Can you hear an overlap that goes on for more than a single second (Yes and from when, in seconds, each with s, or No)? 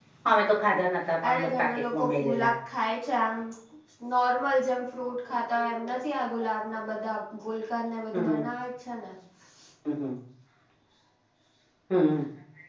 Yes, from 1.3 s